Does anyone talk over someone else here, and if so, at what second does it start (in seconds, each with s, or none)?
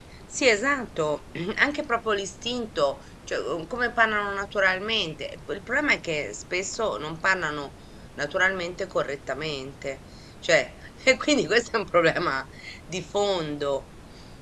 none